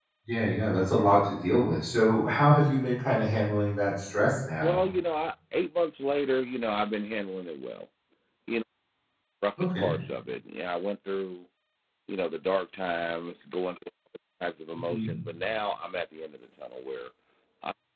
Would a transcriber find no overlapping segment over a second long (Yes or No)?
Yes